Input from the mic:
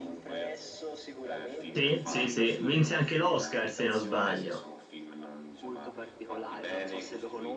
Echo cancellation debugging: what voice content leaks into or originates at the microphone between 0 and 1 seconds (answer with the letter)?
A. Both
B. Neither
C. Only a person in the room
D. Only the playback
D